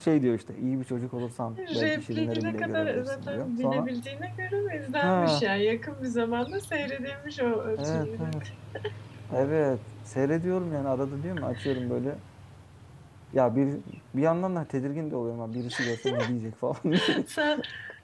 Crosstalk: present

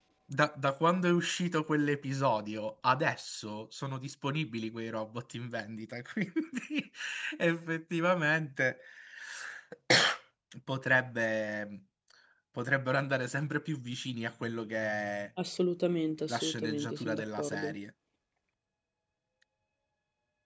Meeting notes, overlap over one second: present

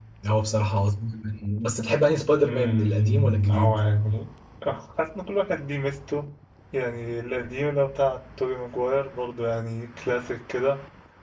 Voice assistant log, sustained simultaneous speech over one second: present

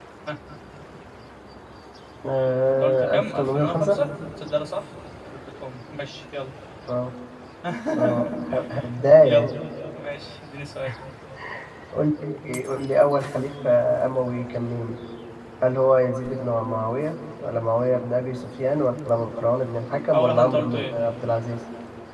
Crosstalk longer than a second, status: present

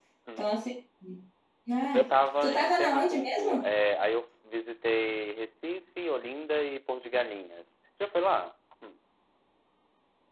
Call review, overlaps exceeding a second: present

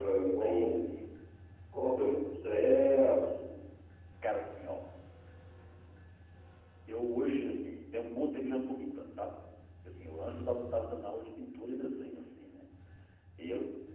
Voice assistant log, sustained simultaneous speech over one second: none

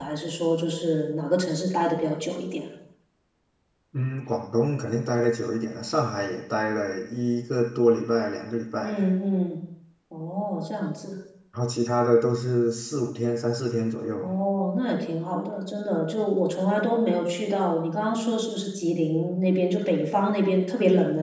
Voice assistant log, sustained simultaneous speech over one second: none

